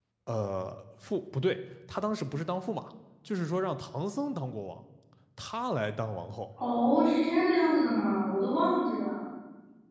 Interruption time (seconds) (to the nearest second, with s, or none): none